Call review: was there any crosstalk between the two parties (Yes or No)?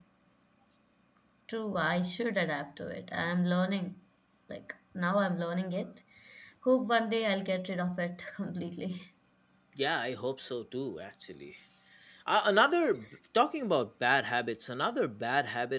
No